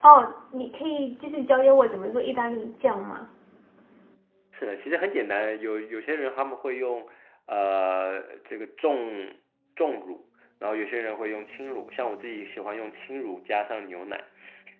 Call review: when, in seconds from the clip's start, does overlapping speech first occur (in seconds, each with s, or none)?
none